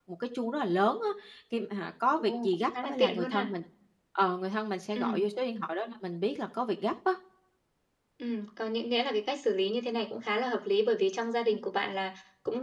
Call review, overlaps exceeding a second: present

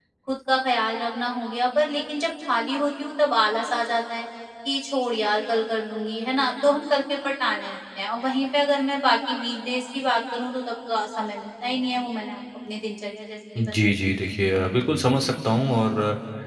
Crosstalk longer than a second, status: none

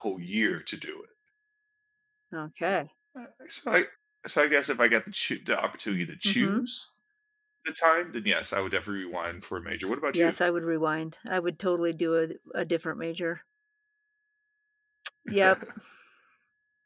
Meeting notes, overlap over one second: none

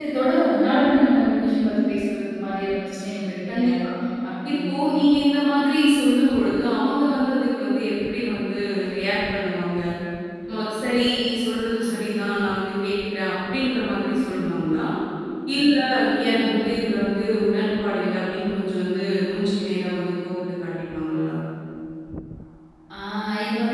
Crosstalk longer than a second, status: none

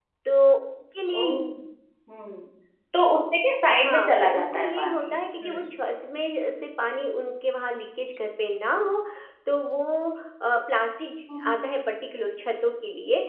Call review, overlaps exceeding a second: present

